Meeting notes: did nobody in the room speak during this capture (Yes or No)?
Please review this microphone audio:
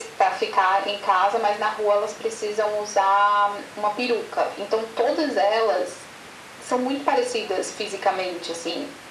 Yes